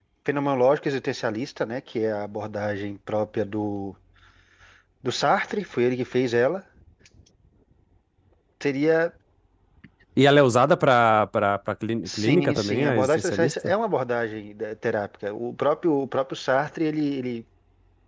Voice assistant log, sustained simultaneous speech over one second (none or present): present